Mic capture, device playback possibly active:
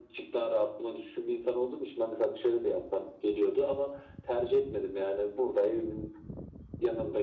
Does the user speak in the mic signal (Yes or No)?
No